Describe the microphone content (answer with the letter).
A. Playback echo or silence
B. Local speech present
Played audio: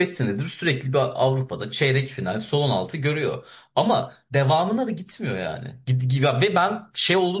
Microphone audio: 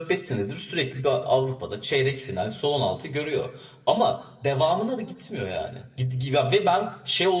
A